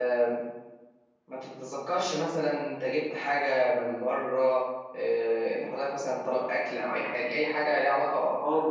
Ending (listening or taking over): taking over